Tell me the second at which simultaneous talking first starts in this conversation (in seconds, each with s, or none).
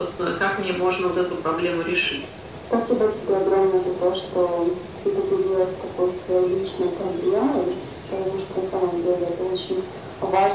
none